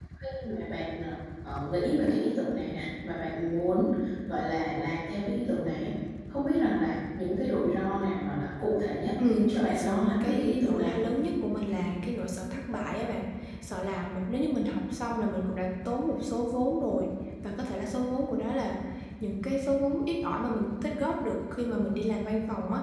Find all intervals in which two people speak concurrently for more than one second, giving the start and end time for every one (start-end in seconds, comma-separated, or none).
9.2-11.0